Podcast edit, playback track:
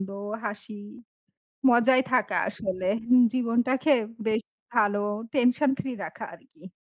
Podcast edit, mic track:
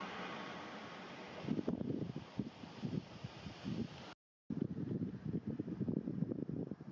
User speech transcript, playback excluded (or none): none